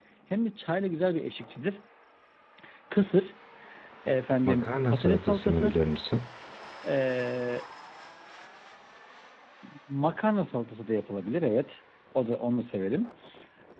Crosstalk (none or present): present